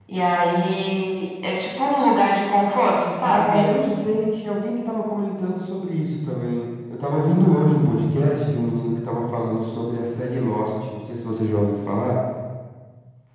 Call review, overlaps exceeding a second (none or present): none